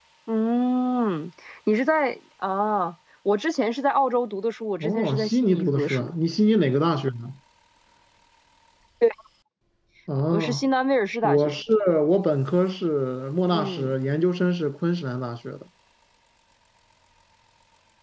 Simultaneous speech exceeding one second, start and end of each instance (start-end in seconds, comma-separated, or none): 4.8-6.1